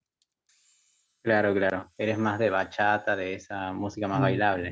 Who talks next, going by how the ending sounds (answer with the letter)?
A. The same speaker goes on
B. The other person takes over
B